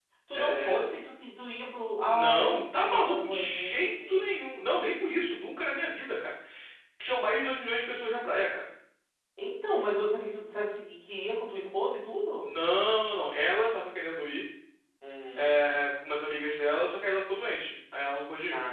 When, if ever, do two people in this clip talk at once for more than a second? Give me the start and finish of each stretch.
2.0-4.2

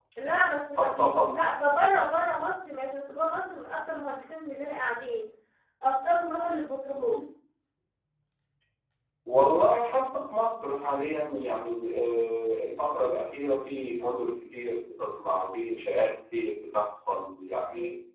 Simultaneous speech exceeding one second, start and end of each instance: none

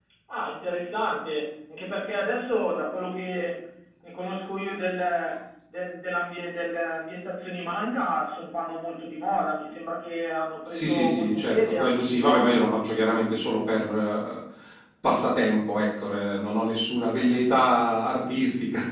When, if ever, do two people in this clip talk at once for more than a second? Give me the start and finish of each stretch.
10.7-12.7

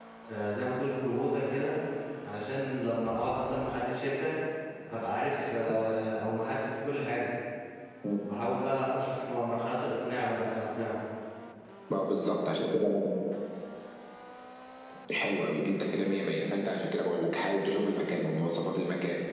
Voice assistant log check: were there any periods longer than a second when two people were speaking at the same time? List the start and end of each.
none

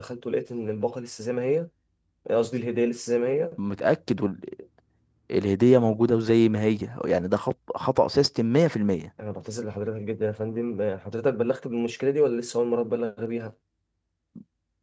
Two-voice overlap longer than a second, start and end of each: none

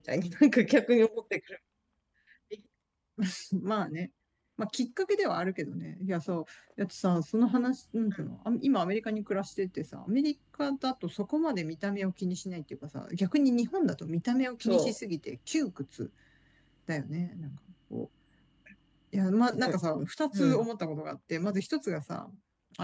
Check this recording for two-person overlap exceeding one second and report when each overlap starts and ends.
none

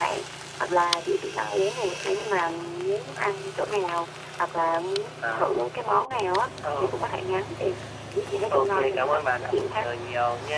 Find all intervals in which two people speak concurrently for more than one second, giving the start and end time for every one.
8.5-9.9

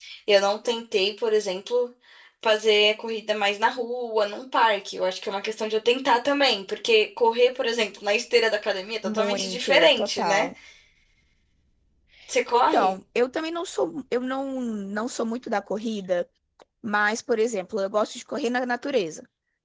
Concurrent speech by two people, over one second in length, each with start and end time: 9.0-10.5

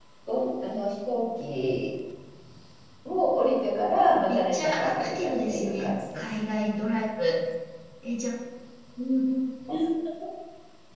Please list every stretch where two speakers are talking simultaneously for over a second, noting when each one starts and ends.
4.5-6.2

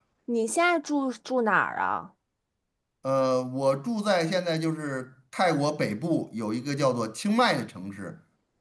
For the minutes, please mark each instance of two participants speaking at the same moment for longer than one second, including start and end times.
none

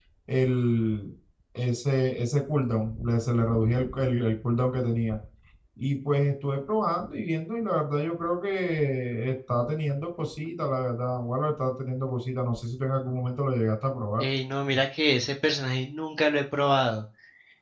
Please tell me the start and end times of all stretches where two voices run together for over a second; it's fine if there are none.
none

